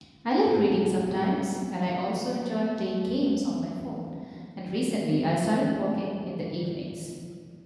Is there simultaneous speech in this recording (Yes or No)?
No